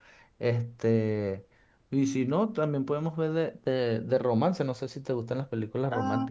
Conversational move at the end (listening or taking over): taking over